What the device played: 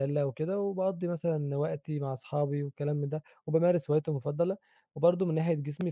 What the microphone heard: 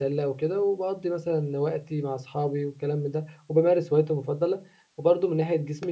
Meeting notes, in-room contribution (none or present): none